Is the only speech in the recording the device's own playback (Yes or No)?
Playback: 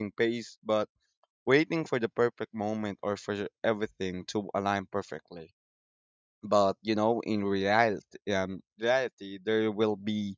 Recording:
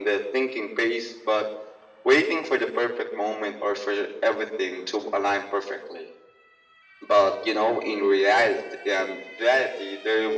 Yes